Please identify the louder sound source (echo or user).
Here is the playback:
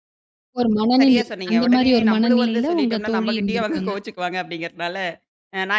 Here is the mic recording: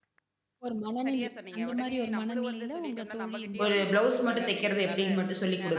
user